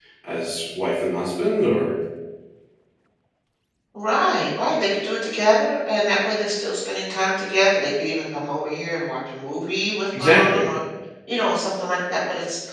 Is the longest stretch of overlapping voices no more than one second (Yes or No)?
Yes